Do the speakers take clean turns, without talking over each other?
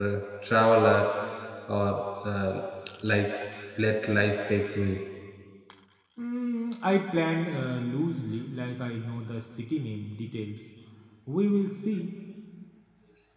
Yes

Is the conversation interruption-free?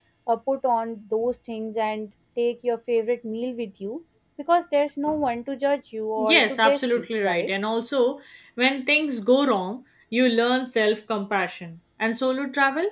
No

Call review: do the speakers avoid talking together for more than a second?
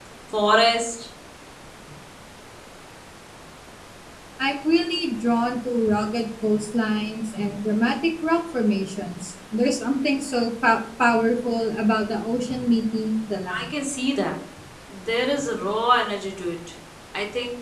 Yes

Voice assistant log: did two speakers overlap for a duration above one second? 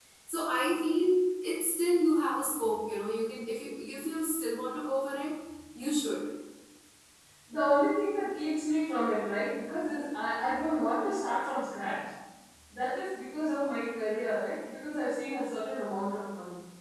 No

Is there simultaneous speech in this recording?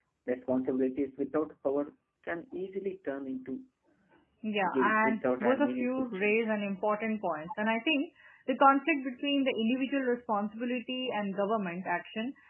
Yes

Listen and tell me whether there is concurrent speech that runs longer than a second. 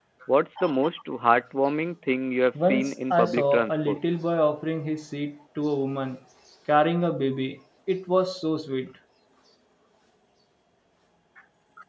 Yes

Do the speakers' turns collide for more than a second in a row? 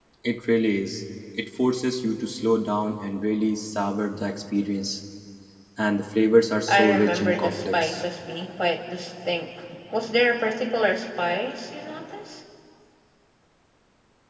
Yes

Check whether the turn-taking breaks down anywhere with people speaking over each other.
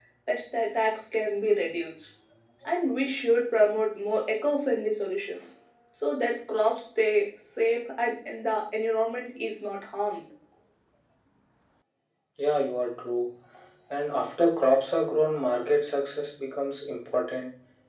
No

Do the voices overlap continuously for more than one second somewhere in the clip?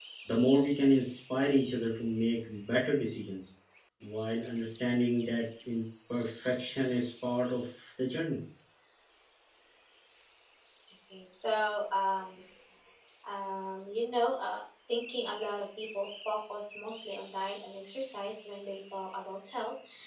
No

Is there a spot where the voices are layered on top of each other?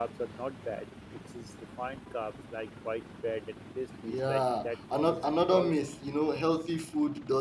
Yes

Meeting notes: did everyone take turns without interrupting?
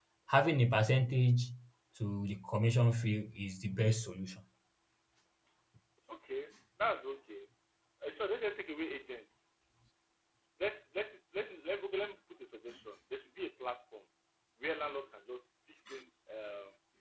Yes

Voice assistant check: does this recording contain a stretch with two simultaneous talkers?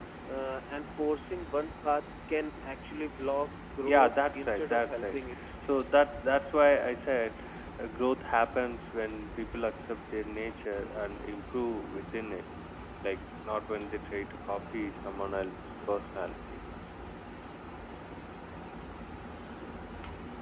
Yes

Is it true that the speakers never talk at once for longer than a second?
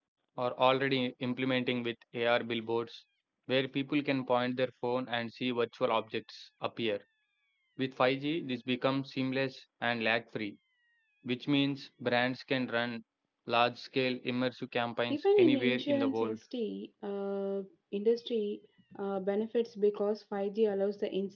No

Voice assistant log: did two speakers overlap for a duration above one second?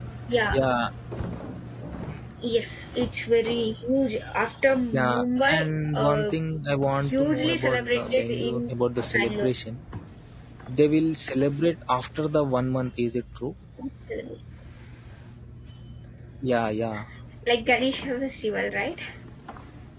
Yes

